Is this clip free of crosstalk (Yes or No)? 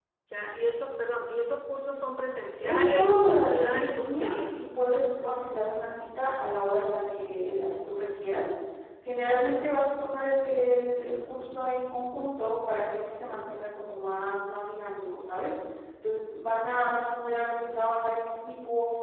No